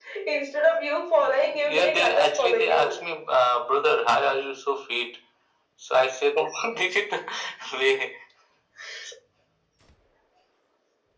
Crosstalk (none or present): present